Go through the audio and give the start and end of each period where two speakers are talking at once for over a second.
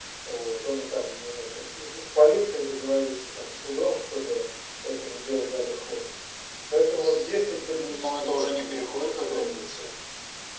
7.8-9.6

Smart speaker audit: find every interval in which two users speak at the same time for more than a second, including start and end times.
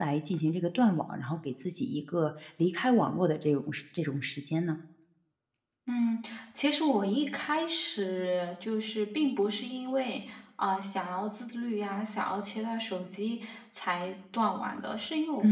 none

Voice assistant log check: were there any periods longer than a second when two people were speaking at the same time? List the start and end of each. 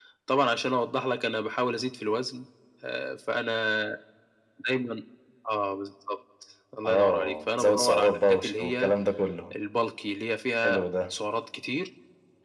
6.9-8.9

